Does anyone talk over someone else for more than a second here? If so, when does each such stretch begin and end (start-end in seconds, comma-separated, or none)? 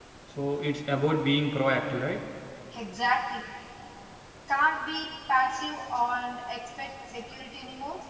none